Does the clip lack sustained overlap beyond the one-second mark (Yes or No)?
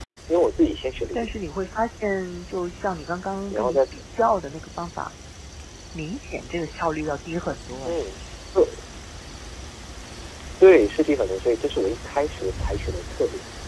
Yes